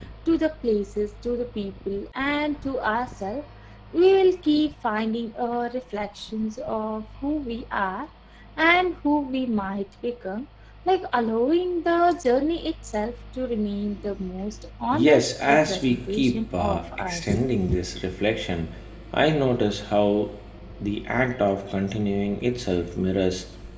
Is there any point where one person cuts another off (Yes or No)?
Yes